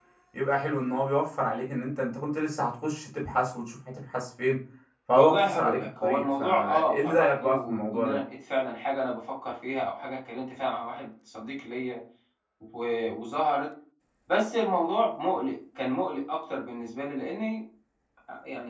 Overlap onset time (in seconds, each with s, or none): 5.1 s